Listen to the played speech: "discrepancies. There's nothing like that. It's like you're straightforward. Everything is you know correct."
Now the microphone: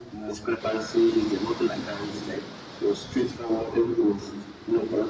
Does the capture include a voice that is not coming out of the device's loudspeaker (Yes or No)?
No